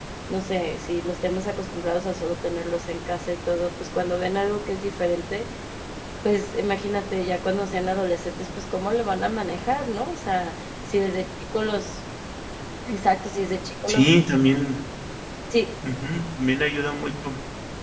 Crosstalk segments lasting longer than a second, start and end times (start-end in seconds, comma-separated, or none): none